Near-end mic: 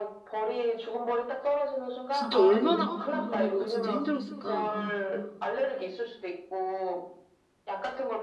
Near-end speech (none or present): present